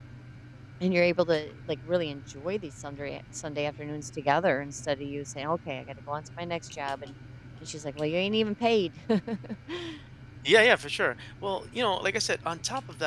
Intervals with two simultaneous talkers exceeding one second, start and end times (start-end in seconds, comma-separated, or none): none